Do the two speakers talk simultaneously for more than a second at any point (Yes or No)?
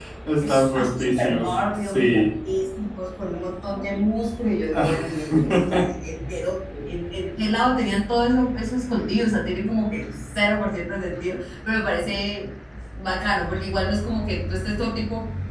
Yes